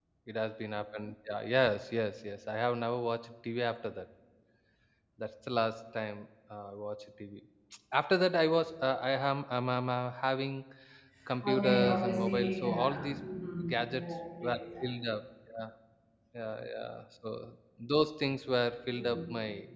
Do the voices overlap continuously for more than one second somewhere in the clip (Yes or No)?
Yes